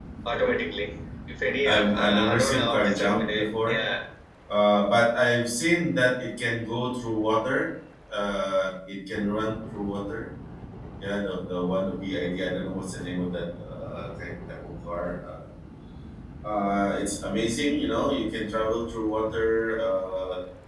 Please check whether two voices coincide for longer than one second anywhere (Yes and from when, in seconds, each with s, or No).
Yes, from 1.6 s